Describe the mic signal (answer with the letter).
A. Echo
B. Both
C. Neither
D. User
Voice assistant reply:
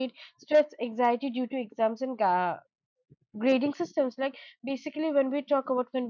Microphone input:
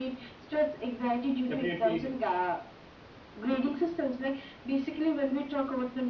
B